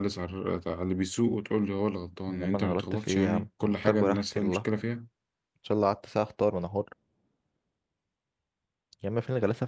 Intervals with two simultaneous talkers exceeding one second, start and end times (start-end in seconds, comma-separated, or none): 2.3-4.6